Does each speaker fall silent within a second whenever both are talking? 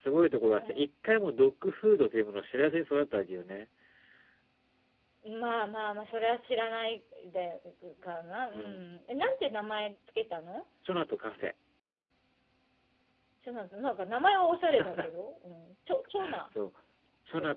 Yes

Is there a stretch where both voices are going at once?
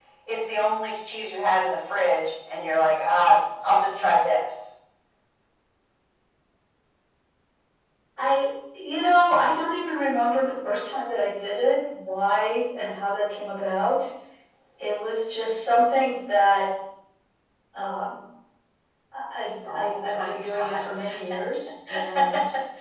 Yes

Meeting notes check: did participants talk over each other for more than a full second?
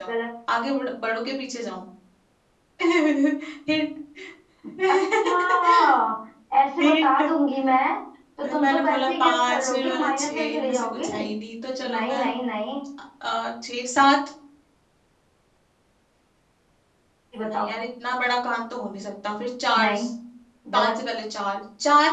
Yes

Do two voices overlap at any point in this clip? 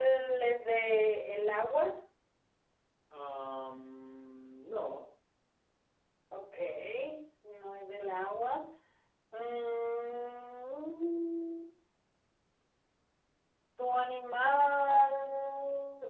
No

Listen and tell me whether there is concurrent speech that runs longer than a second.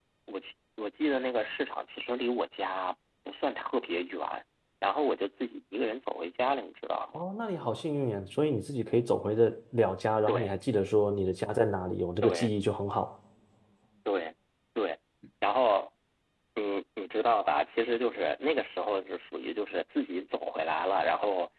No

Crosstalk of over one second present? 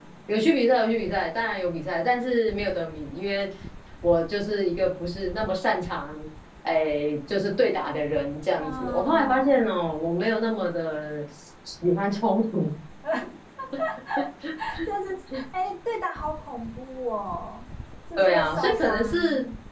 Yes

